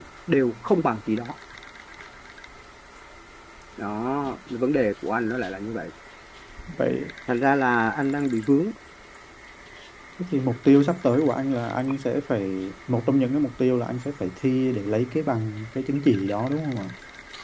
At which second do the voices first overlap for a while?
none

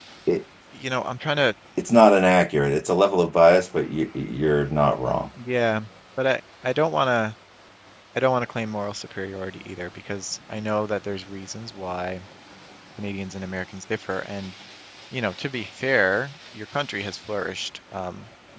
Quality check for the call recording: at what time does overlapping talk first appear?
none

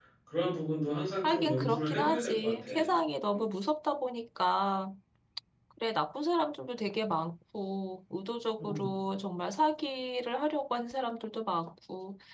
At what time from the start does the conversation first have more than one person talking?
1.2 s

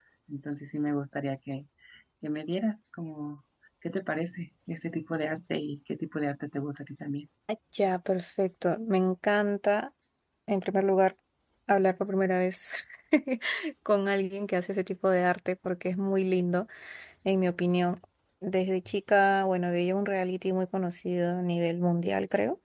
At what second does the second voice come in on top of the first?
none

